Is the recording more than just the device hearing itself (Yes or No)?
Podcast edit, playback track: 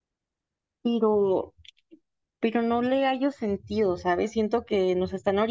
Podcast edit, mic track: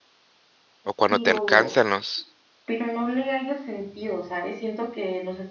Yes